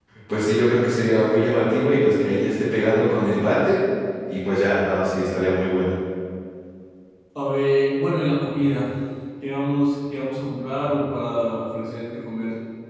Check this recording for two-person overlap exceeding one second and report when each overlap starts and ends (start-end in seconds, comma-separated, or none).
none